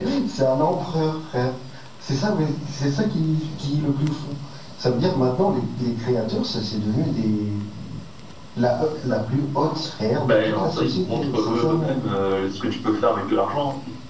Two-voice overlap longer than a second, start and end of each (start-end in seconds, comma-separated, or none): 10.2-12.0